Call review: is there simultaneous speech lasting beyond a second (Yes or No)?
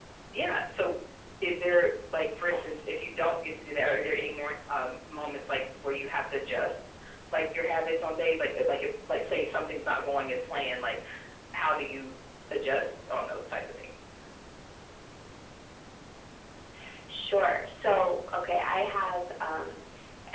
No